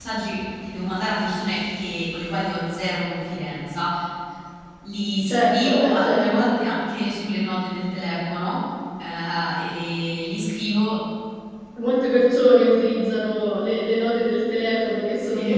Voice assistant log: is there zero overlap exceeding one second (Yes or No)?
No